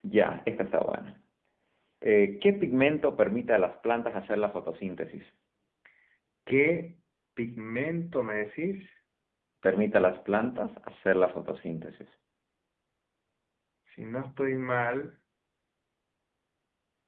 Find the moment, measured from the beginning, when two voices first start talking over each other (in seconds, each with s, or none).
none